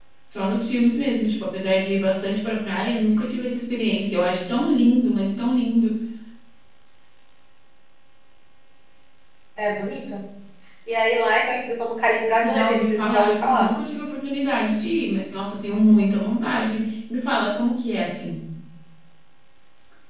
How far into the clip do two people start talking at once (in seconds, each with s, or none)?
12.4 s